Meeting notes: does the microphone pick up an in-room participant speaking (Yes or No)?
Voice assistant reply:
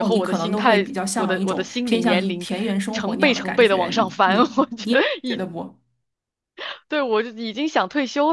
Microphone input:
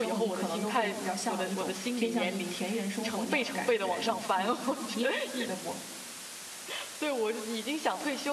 No